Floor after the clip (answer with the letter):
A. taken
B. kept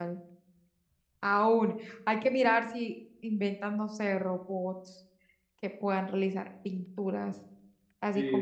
A